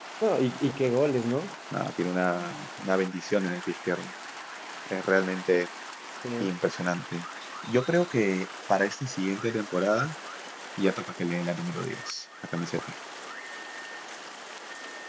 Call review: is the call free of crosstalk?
Yes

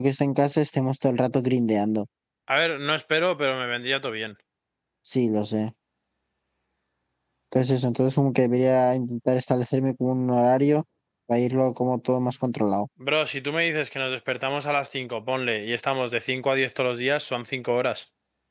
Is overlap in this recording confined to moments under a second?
Yes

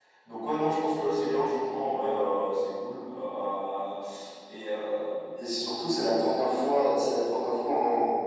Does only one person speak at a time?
Yes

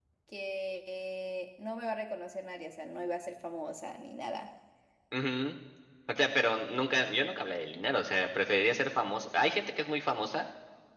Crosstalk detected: No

